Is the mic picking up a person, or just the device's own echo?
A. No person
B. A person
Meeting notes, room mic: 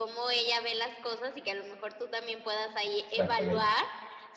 B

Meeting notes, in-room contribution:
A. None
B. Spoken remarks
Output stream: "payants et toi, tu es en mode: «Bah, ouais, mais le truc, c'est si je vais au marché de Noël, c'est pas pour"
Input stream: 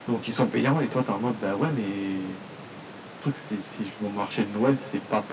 A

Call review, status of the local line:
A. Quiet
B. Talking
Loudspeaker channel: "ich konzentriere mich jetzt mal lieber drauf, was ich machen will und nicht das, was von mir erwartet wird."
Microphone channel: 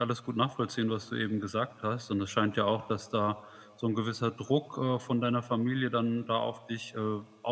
B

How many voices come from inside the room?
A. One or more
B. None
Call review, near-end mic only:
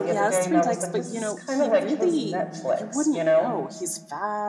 A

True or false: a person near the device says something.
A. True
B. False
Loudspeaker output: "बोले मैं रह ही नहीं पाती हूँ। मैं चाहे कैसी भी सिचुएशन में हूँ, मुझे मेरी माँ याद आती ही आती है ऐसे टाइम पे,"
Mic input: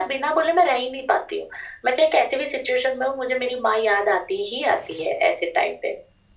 B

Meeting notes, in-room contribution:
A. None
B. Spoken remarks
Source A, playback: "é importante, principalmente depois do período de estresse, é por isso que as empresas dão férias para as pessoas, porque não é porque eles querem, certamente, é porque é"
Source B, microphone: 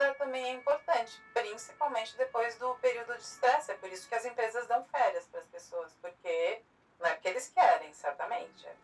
A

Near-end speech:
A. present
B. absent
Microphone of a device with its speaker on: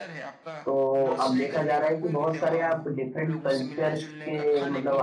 A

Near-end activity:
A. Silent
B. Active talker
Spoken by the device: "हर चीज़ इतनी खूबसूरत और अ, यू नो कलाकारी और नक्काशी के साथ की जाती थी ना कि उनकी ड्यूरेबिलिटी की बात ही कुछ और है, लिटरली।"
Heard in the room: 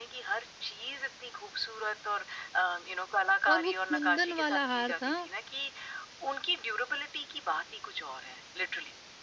B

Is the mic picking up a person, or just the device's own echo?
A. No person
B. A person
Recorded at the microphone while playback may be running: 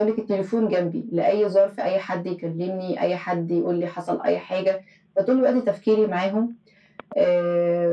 A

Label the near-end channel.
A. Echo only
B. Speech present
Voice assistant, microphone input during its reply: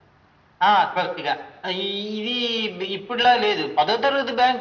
A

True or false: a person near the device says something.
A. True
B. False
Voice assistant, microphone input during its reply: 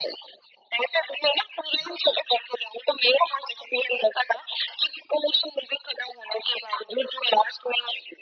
B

